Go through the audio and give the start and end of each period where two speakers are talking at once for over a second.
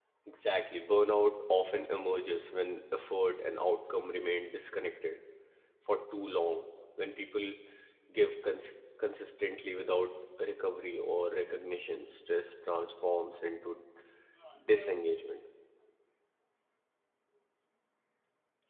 none

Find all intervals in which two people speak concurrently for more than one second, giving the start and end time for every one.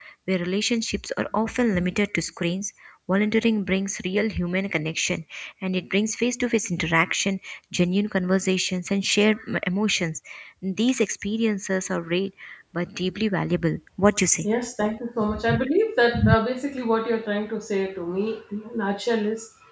none

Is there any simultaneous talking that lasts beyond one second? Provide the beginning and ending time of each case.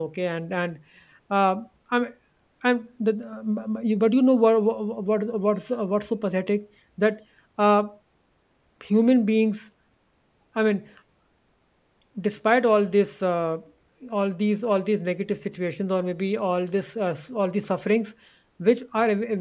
none

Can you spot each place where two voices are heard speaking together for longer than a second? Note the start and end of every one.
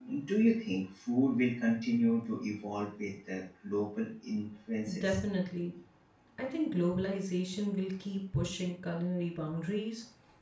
none

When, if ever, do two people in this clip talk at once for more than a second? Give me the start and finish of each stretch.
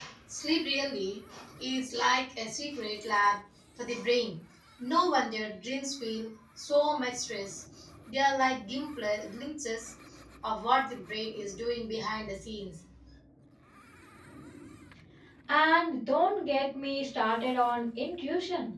none

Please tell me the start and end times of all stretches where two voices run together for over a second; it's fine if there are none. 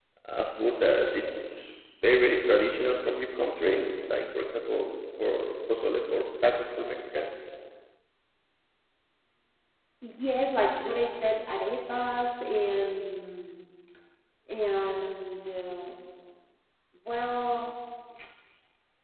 none

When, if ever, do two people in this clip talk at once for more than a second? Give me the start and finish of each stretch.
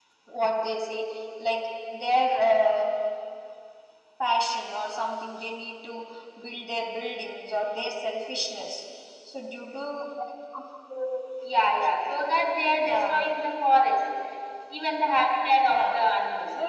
none

